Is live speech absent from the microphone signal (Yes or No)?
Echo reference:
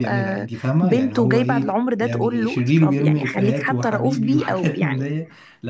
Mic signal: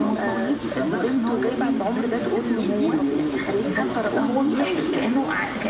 No